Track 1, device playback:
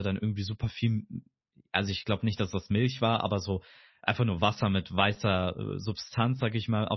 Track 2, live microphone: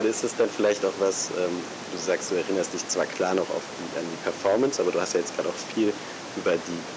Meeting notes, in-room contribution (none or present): present